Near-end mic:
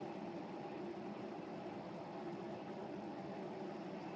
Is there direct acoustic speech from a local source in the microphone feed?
No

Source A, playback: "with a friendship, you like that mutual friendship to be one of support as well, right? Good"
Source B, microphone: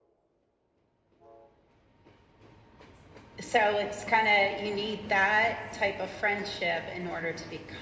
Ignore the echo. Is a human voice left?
Yes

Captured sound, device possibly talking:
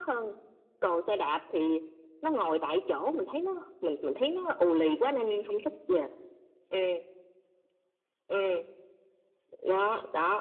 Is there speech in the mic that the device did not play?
No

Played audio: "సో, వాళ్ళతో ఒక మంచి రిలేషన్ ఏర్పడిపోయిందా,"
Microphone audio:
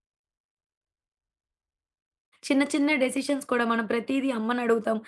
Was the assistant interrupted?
Yes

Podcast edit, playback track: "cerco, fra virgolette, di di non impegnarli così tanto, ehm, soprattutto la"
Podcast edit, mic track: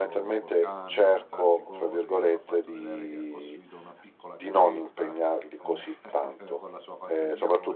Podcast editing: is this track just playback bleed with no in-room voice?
No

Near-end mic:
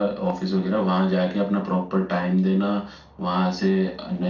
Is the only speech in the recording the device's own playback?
Yes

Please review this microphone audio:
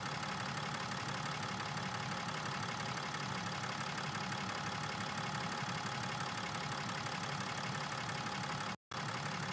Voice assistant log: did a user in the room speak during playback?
No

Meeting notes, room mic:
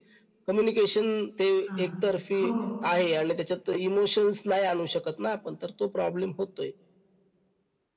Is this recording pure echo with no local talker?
No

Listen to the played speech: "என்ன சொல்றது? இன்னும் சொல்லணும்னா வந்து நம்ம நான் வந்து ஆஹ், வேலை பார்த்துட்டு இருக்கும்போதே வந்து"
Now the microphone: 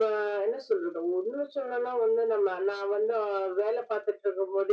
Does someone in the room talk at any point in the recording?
No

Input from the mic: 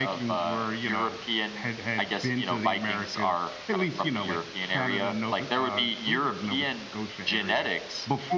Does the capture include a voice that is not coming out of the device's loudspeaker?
No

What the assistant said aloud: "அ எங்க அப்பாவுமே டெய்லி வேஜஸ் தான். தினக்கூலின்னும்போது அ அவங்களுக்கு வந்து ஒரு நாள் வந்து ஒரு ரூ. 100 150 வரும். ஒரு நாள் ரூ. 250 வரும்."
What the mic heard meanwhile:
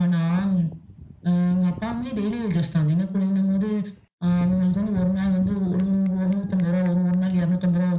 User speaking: No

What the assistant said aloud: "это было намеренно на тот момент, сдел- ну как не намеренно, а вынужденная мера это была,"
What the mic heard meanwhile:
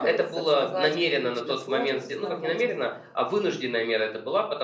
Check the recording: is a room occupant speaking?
Yes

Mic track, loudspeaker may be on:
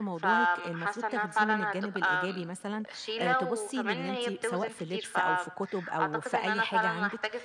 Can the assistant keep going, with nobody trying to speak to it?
No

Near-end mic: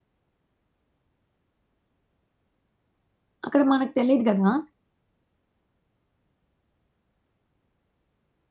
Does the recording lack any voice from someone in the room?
No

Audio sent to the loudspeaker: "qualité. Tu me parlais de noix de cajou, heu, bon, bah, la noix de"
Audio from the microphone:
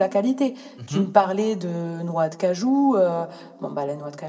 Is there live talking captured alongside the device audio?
Yes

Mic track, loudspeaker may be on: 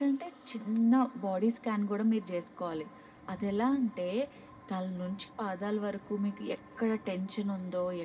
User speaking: No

